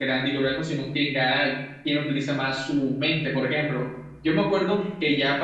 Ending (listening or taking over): listening